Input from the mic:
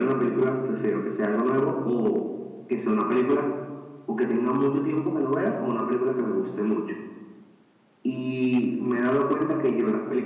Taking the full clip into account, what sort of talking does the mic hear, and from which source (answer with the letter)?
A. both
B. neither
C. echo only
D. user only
C